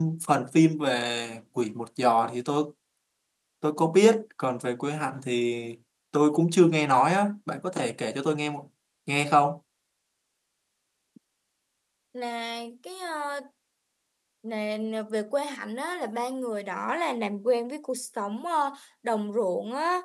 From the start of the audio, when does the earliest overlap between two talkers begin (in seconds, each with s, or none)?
none